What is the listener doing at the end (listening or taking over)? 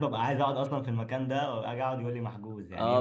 taking over